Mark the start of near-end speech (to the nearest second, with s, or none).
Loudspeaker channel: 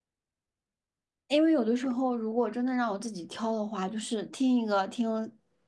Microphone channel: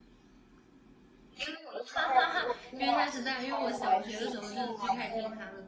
2 s